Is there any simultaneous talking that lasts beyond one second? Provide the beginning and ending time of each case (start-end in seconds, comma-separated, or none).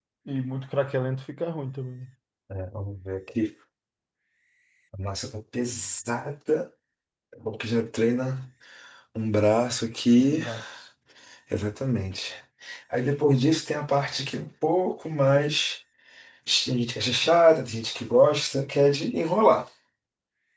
none